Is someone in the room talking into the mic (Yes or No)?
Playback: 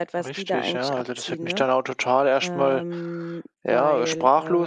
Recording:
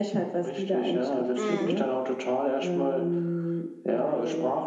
Yes